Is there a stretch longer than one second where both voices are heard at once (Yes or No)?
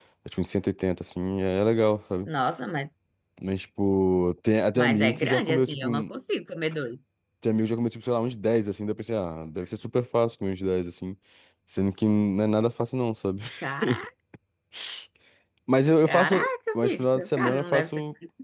Yes